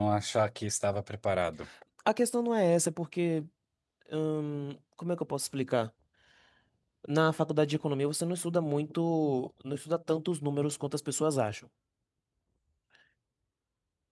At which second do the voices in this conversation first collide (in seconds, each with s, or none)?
none